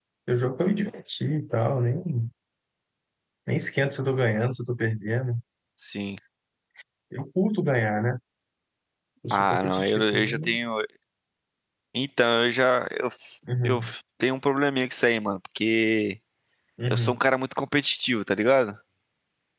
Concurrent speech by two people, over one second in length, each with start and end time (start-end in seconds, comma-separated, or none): 9.3-10.7